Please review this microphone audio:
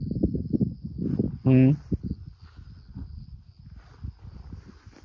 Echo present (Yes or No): No